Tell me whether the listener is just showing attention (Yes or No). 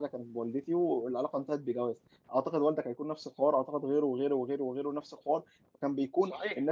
Yes